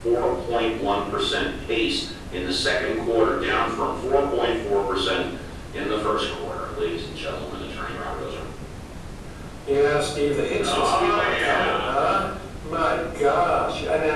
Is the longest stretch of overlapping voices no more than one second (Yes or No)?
No